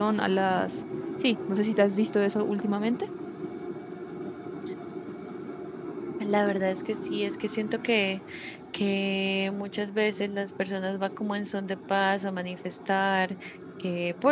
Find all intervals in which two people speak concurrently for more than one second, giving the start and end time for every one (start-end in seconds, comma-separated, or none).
none